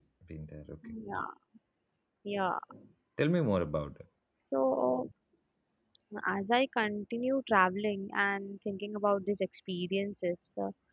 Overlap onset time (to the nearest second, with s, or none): none